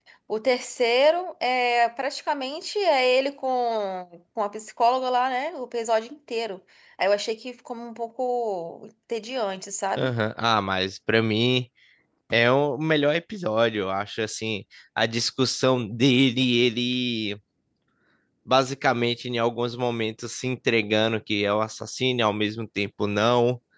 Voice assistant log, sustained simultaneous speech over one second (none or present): none